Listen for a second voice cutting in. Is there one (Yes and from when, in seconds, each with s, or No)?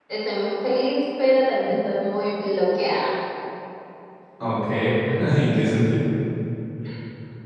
No